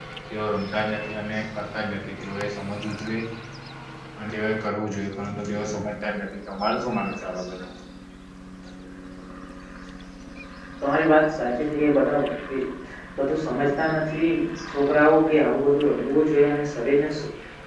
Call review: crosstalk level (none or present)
none